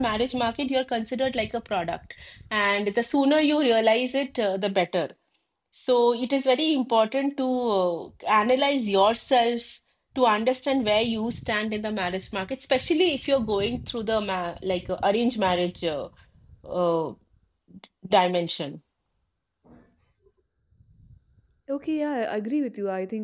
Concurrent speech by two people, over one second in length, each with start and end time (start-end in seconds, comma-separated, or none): none